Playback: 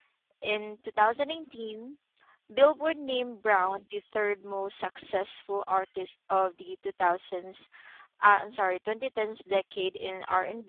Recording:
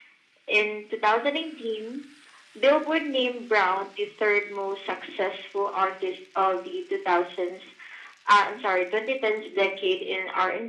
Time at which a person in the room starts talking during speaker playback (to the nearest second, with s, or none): none